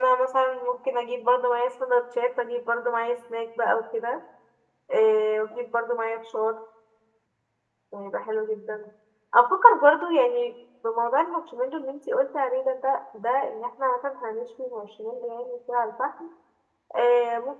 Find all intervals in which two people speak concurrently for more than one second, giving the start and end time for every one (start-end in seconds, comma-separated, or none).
none